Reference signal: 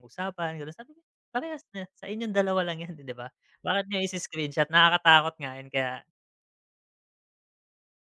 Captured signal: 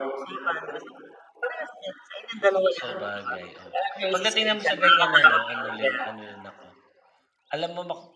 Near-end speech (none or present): present